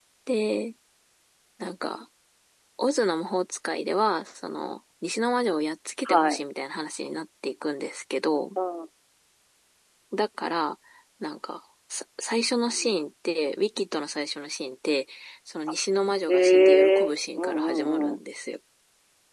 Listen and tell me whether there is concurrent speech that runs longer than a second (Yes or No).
Yes